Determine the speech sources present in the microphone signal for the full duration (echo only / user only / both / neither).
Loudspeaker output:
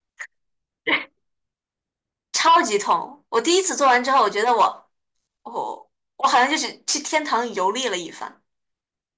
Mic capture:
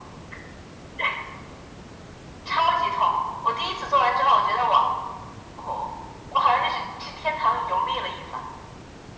echo only